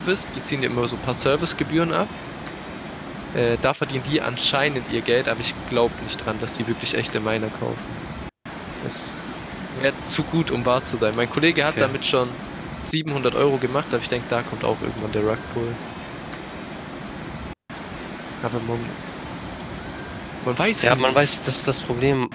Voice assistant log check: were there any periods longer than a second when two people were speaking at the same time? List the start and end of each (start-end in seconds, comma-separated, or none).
none